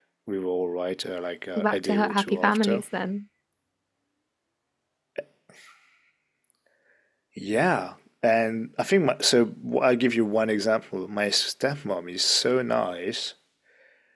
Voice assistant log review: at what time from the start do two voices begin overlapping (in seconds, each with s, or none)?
1.6 s